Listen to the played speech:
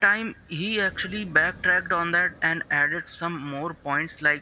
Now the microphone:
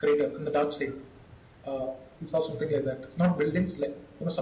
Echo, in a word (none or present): none